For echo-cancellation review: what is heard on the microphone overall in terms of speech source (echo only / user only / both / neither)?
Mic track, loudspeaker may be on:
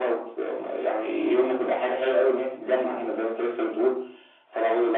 echo only